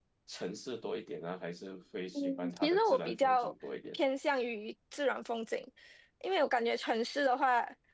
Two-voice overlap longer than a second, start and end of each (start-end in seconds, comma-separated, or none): 2.1-3.5